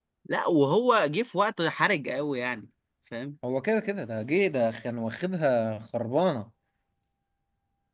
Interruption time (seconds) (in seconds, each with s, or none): none